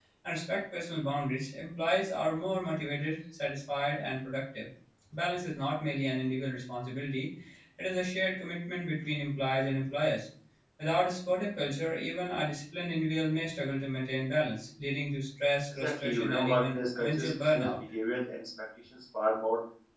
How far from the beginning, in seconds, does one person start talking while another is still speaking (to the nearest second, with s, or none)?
16 s